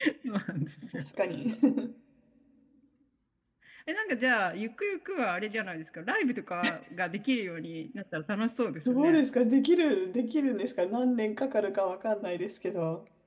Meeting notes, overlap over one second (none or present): none